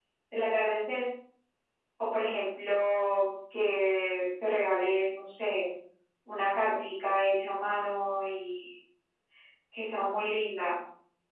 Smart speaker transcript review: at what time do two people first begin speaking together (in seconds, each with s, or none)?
none